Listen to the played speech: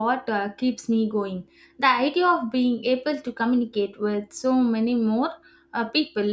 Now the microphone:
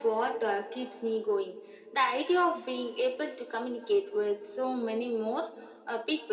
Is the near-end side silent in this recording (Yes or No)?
Yes